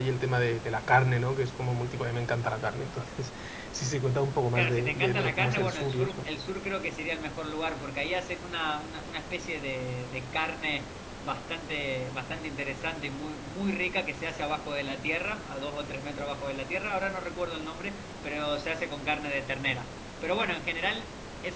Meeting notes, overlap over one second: present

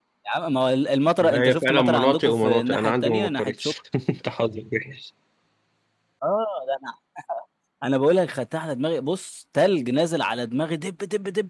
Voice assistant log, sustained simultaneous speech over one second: present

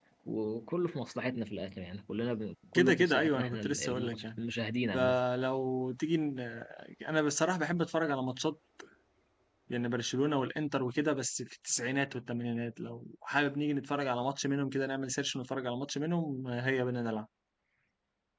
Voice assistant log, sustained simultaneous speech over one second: present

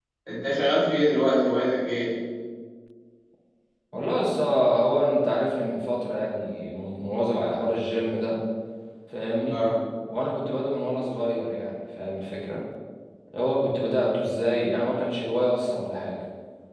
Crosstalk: none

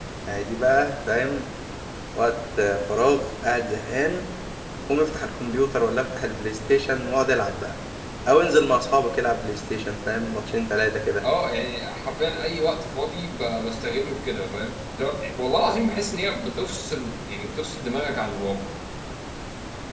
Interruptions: none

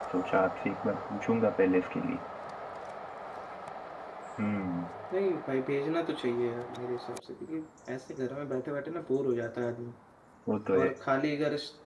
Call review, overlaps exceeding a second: none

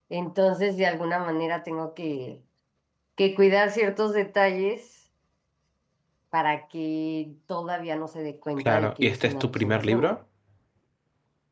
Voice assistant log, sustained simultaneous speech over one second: present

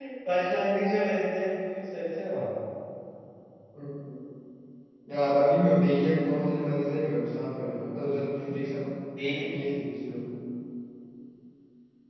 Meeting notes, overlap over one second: none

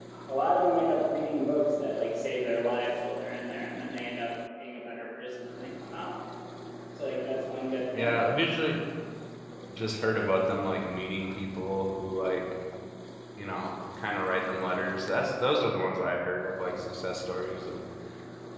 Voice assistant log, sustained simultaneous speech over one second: none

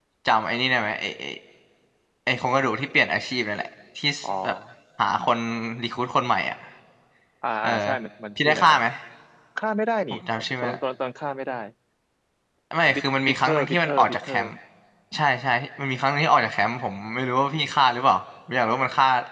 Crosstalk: present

